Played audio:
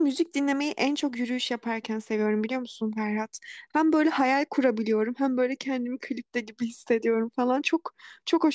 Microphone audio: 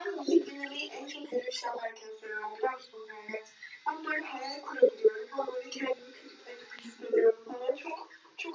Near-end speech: none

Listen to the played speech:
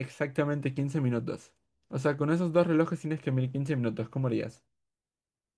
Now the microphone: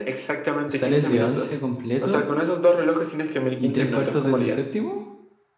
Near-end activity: present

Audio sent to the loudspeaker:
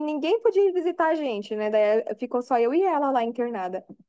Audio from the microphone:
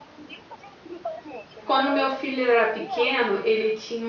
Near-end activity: present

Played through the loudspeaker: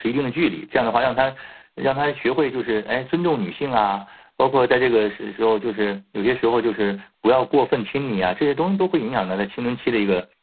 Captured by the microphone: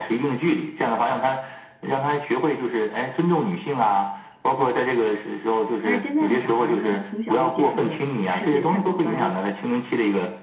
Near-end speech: present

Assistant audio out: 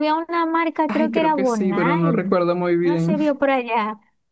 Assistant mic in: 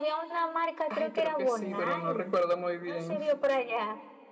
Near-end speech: none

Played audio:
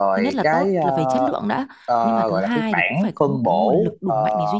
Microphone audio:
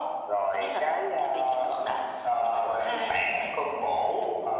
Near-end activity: none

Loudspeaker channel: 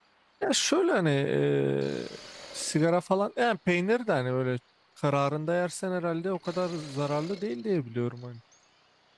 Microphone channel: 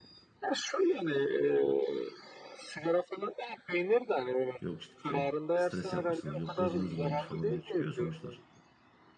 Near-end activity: present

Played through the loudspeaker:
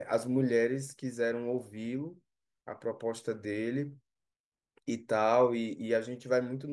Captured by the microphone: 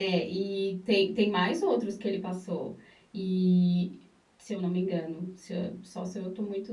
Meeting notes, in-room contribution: present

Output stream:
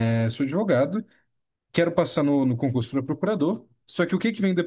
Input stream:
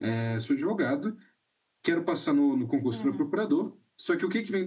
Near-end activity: present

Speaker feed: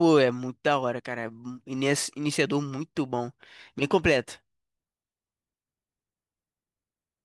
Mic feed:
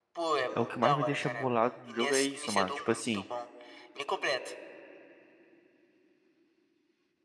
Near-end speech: present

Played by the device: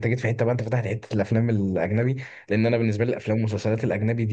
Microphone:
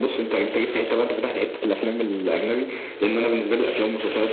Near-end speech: none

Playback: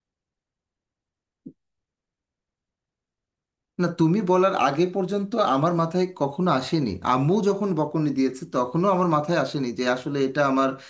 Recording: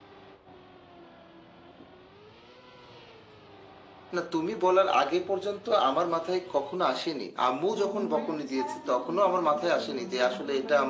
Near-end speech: present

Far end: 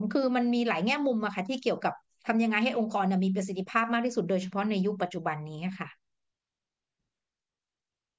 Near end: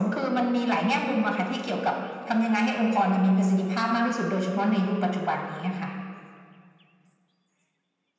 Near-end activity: none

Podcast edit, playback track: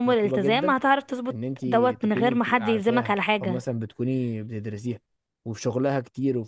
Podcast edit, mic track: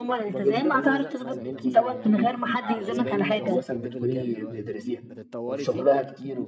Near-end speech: present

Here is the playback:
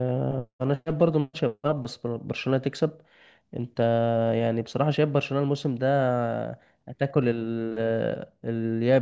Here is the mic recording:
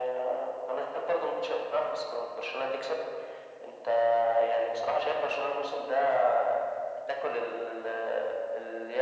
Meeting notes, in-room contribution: none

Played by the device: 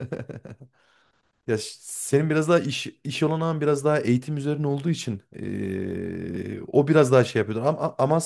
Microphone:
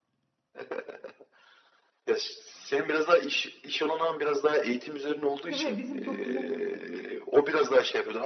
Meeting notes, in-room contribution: present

